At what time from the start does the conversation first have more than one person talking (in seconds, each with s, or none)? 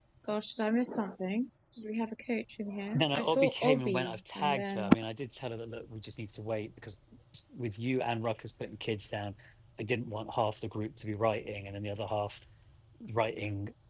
2.9 s